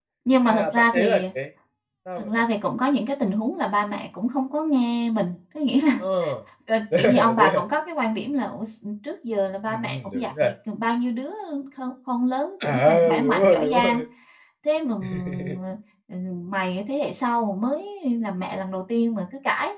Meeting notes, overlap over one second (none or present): present